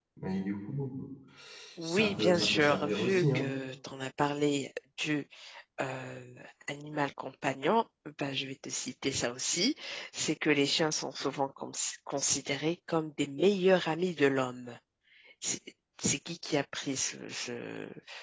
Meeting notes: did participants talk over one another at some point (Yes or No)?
Yes